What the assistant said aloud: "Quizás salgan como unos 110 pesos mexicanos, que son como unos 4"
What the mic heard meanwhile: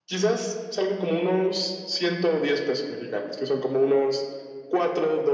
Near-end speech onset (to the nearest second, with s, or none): none